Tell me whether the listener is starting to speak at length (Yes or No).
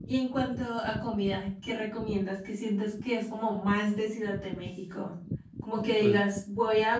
No